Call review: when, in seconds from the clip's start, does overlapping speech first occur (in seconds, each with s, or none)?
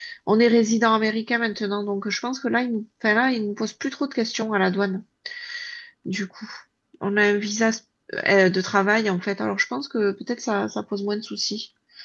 none